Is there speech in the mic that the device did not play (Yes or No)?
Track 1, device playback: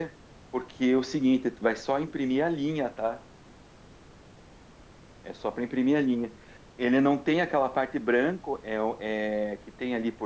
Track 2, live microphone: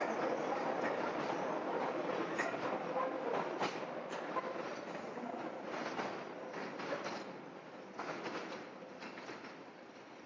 No